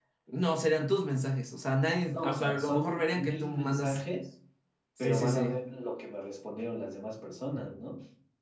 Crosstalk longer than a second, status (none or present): present